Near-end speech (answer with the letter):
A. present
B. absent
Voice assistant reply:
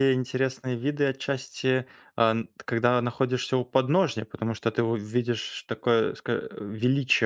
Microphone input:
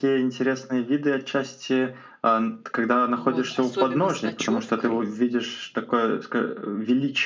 A